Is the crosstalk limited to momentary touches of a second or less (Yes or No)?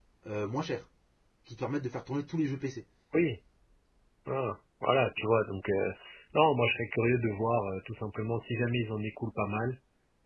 Yes